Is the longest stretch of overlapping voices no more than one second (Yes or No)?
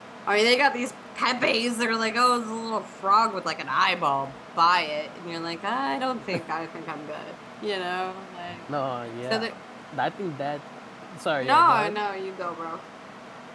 Yes